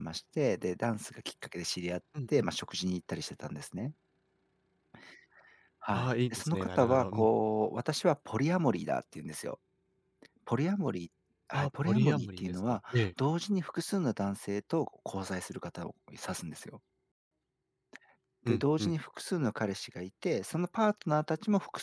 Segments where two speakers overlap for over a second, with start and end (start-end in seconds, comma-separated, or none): 5.9-7.3, 11.5-12.8